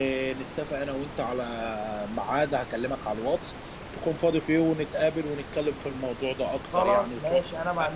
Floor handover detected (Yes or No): Yes